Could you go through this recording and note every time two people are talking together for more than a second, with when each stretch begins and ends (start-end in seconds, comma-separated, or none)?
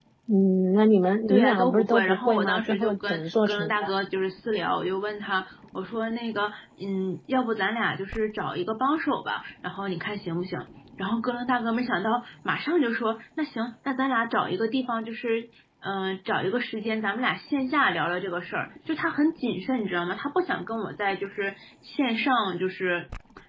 1.3-3.9